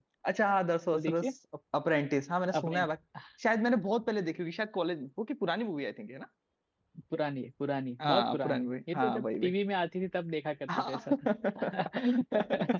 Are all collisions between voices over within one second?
No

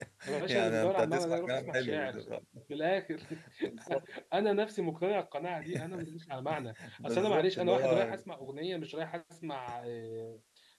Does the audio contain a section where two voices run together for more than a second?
Yes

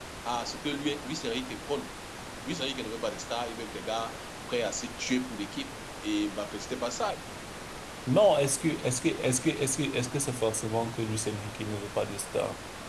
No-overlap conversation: Yes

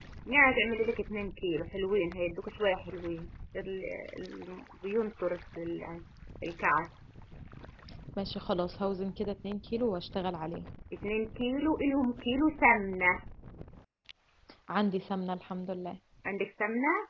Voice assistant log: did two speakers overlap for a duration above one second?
No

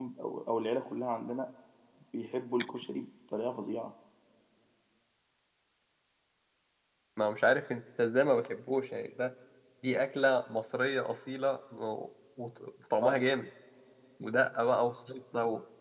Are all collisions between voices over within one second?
Yes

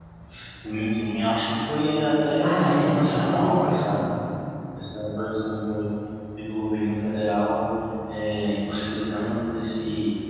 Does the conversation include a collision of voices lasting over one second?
Yes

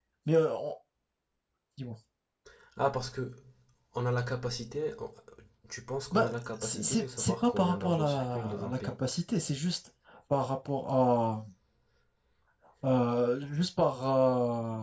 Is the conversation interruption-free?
No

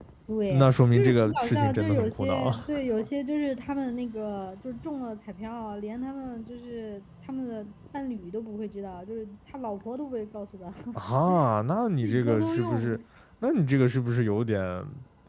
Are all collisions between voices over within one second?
No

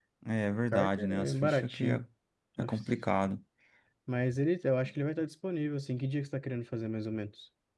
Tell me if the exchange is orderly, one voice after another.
No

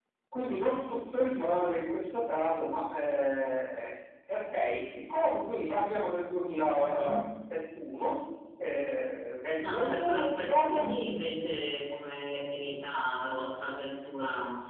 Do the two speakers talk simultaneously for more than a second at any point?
Yes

